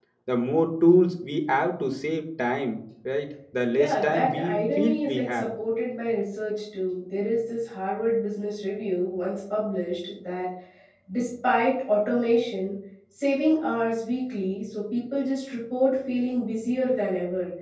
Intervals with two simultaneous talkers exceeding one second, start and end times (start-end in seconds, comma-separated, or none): 3.7-5.5